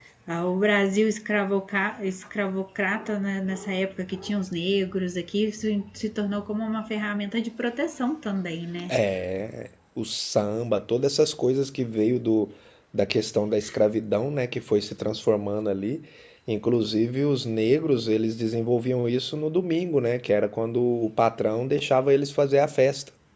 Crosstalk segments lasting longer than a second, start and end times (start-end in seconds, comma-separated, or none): none